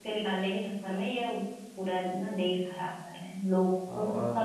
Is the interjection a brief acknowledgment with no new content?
No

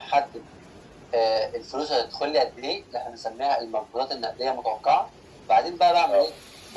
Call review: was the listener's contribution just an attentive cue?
Yes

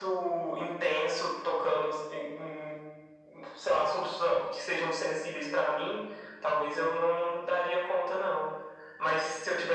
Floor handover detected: No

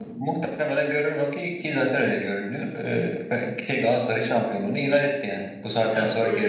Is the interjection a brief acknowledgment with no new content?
No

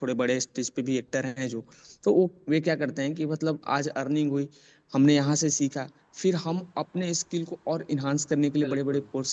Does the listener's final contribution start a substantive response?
No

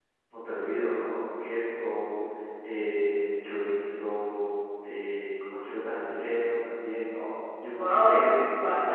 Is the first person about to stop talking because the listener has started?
Yes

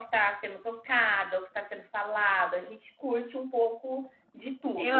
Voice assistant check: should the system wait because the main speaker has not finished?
No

